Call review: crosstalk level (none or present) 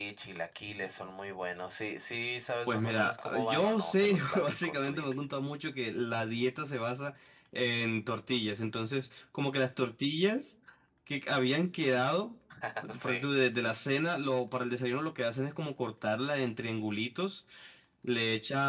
present